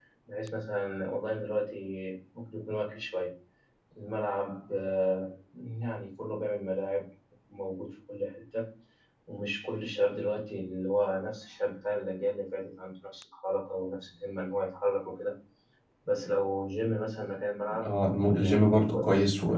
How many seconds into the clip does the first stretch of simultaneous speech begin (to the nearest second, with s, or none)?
18 s